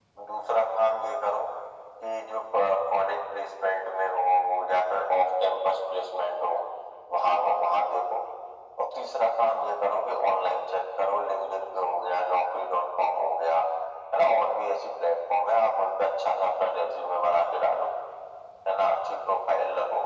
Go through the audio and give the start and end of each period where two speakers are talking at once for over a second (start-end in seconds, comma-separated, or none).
none